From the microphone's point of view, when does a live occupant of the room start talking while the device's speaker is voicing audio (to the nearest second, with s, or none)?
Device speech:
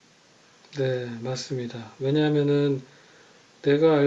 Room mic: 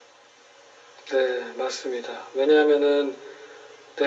none